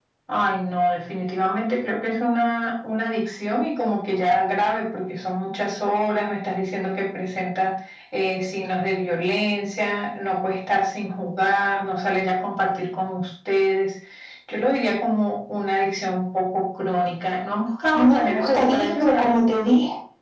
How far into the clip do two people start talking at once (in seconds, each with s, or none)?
17.9 s